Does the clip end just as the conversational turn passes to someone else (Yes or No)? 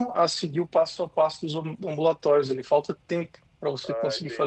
Yes